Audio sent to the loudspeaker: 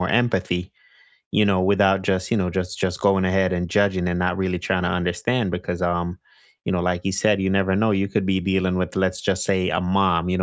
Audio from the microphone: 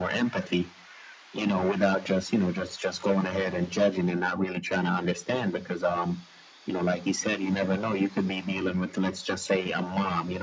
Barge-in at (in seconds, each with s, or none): none